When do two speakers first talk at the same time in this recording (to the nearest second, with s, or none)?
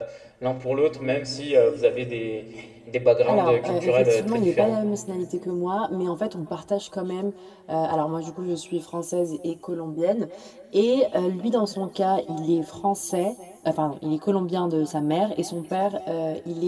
3 s